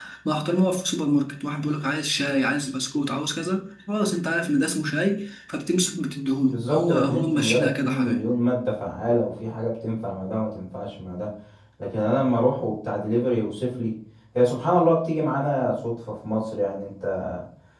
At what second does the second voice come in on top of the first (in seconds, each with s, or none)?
6.5 s